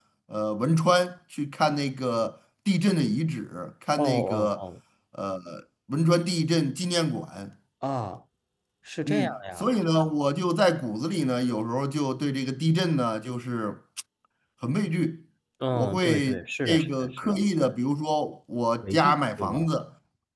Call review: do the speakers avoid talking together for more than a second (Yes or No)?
No